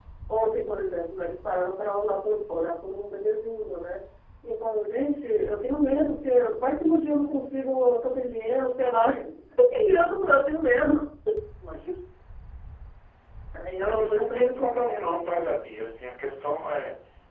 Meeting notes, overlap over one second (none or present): present